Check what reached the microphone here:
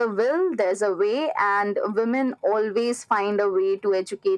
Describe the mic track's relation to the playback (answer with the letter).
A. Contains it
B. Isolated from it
A